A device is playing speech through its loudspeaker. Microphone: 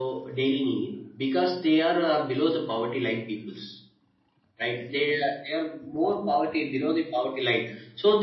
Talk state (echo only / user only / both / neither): echo only